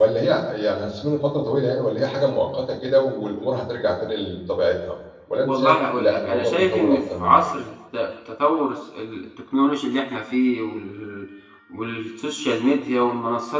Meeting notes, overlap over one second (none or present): present